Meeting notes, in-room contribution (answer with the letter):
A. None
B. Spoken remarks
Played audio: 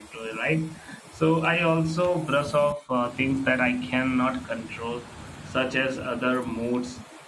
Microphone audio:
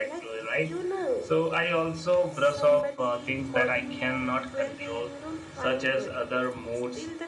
B